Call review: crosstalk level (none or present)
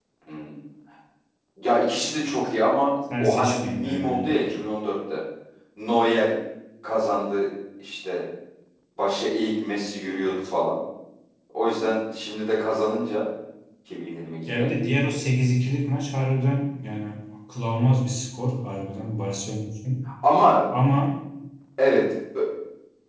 present